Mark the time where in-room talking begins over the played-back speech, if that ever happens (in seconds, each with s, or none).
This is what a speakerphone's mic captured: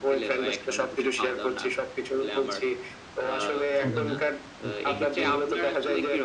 3.8 s